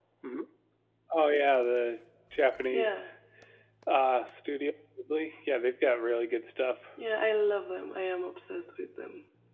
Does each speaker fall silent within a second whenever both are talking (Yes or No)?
Yes